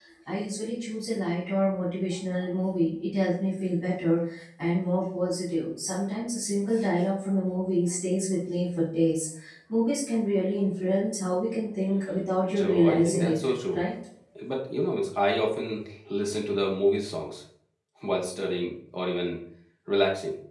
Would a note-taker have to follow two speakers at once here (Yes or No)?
Yes